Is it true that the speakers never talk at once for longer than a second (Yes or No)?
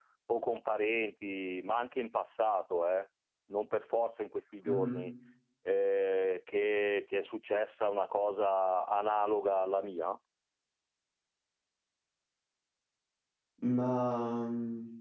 Yes